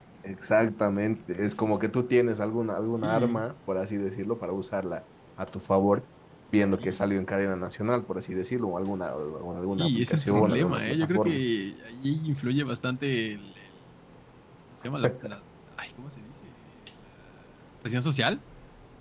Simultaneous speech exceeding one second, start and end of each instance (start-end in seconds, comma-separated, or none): 9.8-11.4